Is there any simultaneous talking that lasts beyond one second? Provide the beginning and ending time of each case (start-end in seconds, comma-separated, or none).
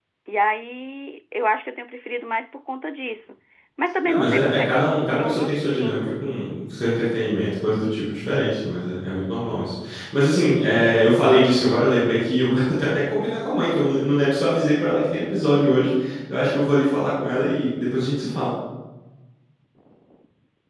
4.0-6.1